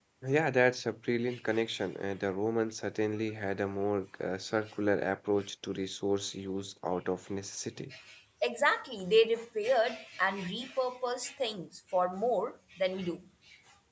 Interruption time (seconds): none

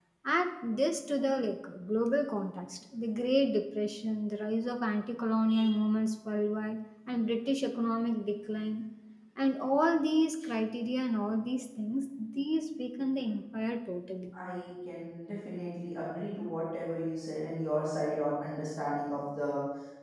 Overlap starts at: none

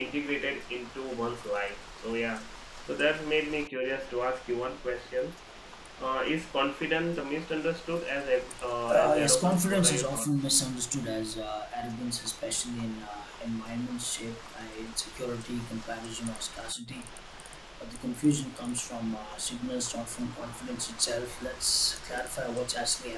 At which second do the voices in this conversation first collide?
8.9 s

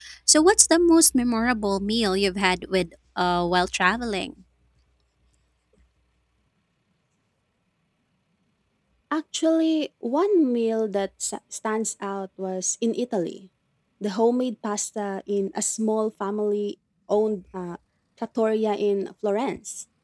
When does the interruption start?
none

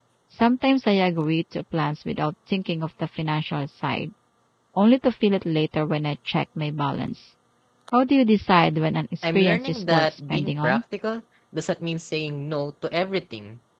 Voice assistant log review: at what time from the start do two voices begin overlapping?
9.2 s

